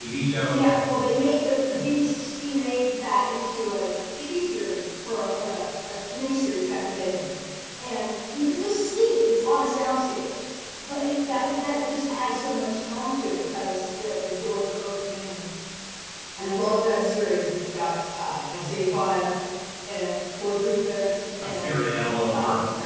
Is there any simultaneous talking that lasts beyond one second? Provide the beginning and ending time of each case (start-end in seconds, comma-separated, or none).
none